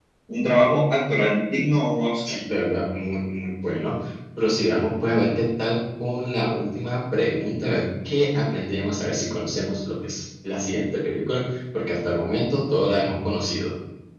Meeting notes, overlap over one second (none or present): none